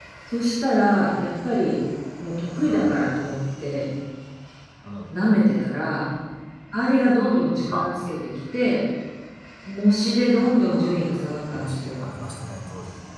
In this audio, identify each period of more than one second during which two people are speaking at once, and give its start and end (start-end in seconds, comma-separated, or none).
10.7-11.9